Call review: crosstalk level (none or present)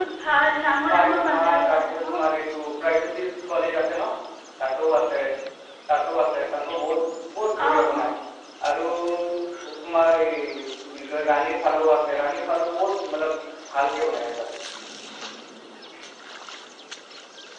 present